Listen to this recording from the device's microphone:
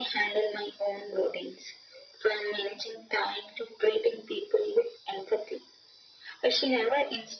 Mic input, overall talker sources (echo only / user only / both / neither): echo only